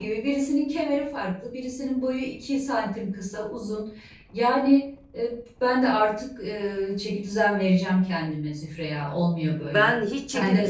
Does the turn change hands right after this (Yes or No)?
Yes